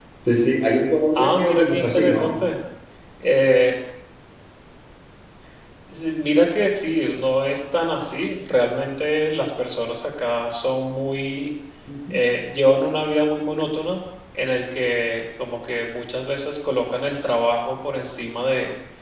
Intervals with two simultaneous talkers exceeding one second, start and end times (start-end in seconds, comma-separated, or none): 1.1-2.5